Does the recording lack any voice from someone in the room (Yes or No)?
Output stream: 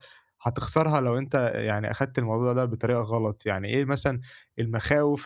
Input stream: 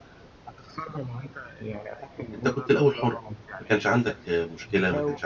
No